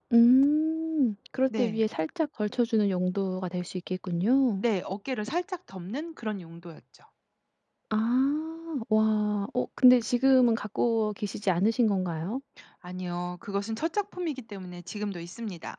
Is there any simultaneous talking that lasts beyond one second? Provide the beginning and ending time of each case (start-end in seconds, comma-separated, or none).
none